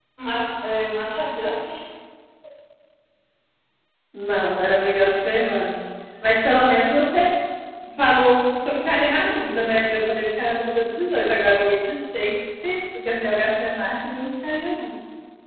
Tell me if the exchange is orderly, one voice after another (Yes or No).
Yes